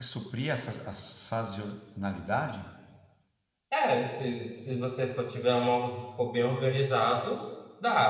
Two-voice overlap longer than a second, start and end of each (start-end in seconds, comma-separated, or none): none